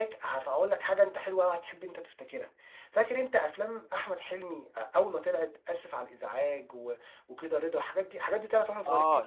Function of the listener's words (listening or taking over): taking over